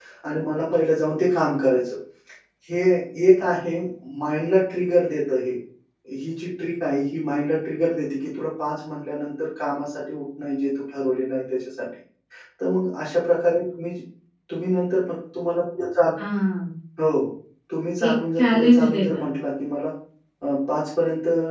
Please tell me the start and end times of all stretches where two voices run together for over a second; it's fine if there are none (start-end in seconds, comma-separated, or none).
18.0-19.3